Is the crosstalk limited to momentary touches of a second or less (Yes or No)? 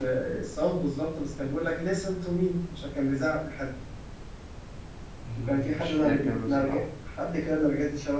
No